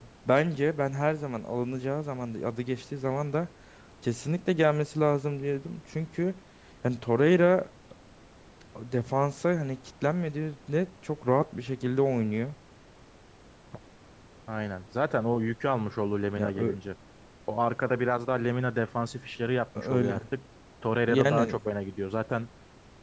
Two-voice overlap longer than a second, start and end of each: none

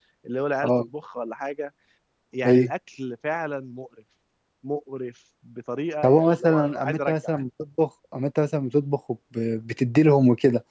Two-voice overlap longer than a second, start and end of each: 6.0-7.3

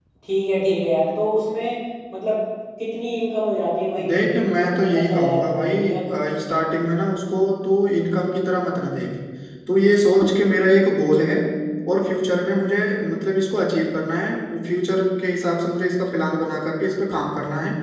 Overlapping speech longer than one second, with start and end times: 4.1-6.0

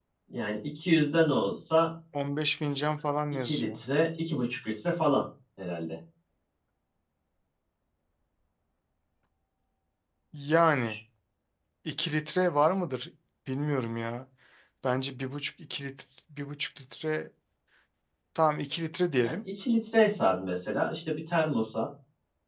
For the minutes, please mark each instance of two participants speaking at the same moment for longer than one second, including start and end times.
none

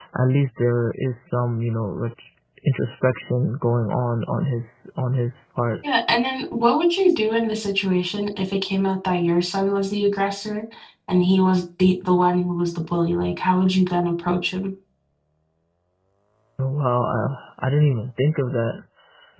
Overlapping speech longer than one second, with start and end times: none

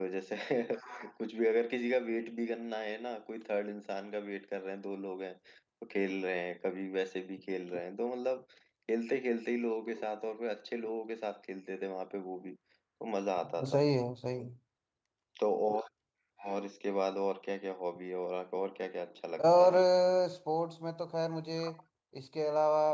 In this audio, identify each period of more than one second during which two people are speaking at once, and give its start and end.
none

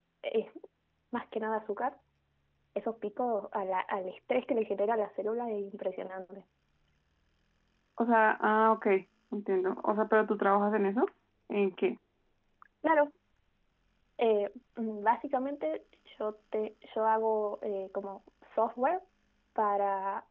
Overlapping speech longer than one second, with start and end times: none

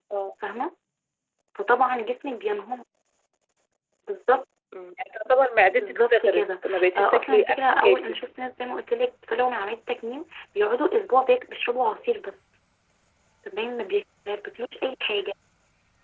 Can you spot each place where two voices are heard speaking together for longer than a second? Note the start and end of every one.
5.8-8.2

